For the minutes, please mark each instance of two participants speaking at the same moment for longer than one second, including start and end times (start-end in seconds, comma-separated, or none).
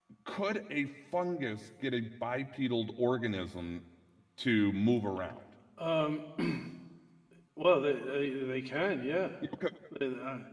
none